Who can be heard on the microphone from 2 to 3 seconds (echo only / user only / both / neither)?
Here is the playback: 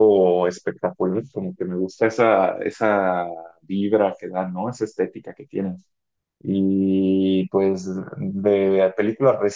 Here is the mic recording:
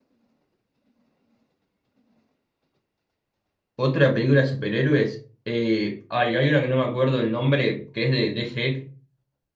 neither